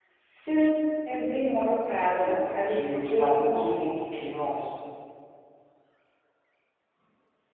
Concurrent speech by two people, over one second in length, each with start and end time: 2.2-4.0

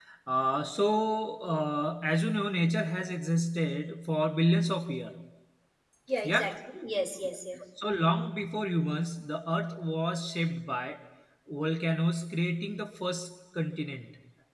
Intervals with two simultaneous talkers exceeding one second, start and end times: none

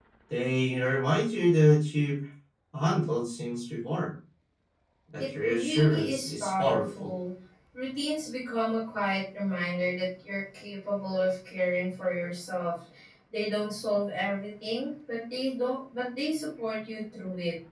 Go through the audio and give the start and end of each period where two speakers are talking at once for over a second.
5.4-7.1

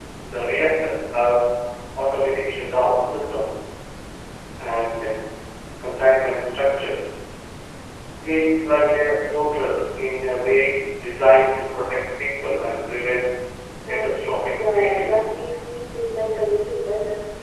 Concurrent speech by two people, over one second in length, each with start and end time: 13.9-15.2

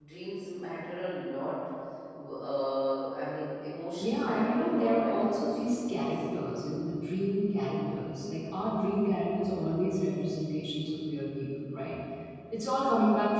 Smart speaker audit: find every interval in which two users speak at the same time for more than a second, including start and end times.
4.0-6.0

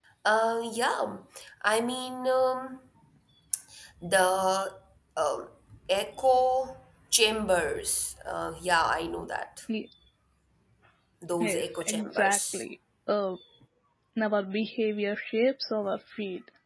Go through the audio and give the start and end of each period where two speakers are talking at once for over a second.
11.4-12.6

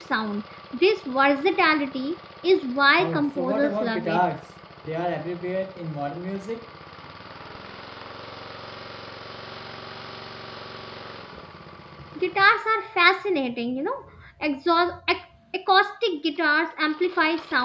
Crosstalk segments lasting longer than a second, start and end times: 3.0-4.2

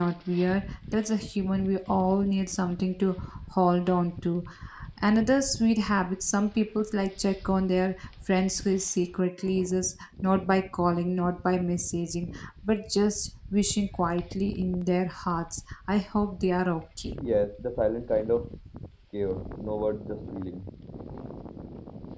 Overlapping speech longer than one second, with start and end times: none

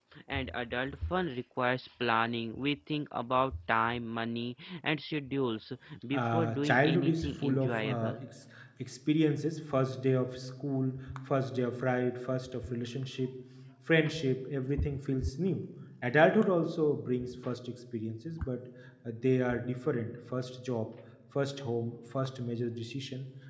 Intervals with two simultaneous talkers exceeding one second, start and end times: 6.1-8.2

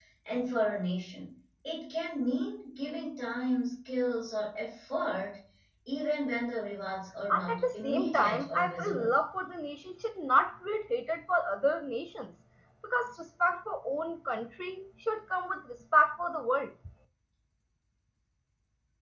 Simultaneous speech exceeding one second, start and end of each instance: 7.3-9.1

